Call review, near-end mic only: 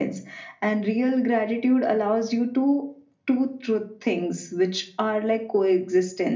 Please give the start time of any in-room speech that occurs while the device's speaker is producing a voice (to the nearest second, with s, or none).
none